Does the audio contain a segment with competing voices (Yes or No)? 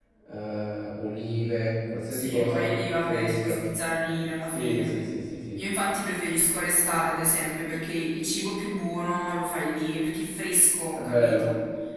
Yes